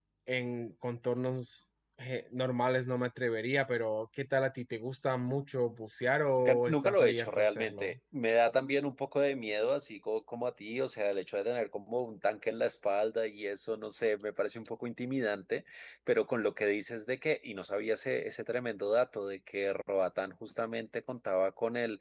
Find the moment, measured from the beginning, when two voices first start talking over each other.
6.4 s

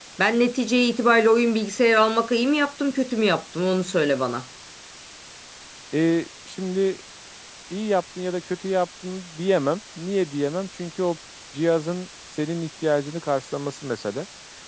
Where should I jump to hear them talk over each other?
none

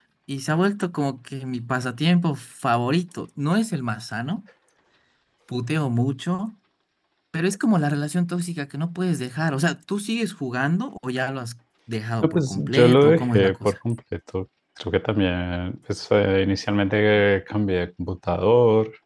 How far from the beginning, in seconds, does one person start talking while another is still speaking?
12.2 s

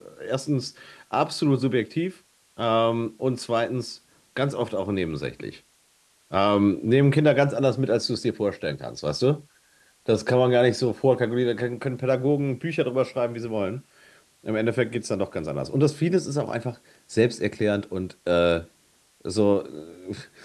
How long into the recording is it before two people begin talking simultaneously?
none

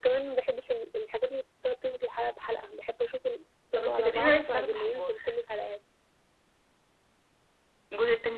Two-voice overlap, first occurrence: 3.8 s

